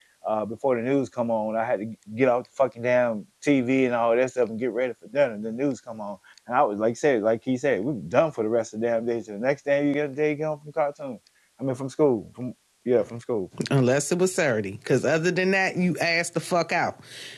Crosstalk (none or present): none